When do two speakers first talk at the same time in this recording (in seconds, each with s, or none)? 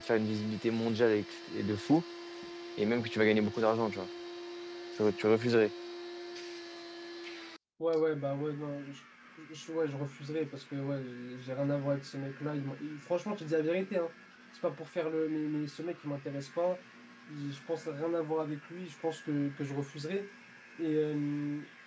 none